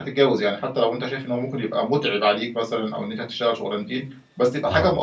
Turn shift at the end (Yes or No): No